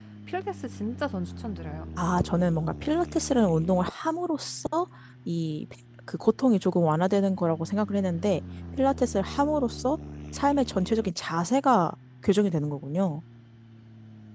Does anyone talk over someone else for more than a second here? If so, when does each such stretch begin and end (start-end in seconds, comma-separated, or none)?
none